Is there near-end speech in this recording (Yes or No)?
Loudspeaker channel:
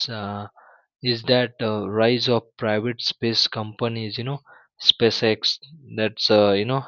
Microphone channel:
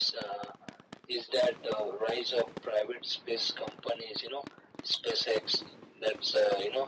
No